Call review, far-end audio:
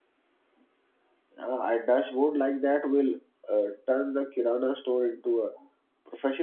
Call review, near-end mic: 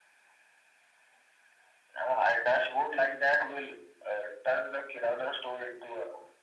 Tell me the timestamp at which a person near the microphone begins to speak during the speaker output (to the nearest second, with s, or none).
none